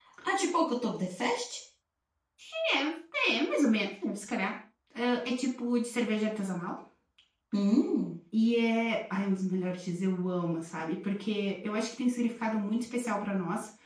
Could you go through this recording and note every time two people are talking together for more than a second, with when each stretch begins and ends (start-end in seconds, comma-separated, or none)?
none